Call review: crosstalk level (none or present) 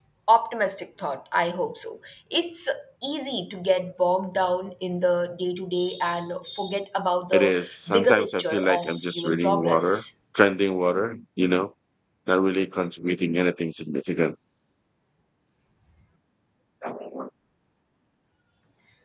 present